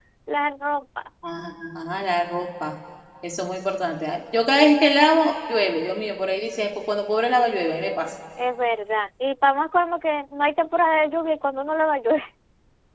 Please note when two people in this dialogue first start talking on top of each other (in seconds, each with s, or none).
none